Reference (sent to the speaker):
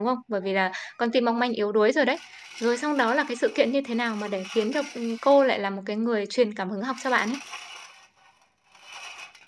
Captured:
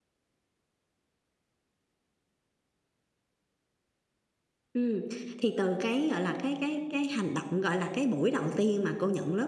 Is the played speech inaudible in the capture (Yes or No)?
Yes